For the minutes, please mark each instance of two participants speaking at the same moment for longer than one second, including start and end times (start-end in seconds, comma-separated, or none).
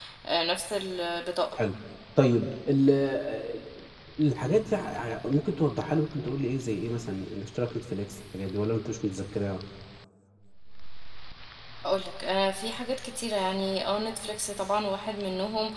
none